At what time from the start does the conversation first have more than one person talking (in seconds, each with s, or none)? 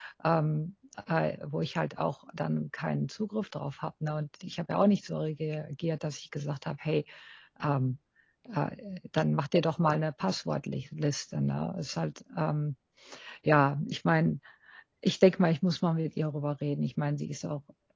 none